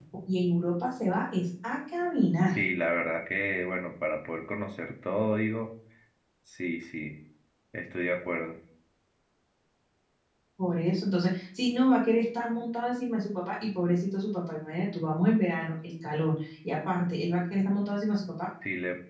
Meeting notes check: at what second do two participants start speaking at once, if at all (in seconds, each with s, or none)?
none